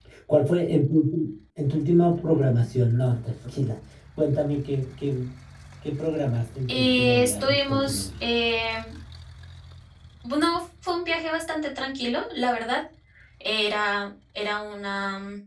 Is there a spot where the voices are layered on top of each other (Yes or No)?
Yes